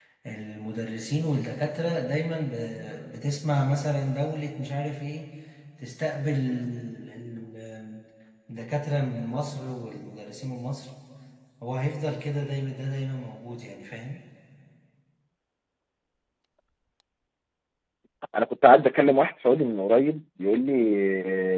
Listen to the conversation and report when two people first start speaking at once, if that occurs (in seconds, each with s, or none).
none